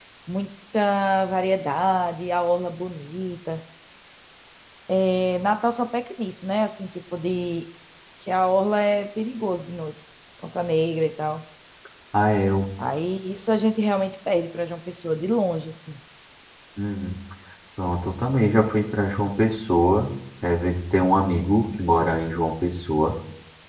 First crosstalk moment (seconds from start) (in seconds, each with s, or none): none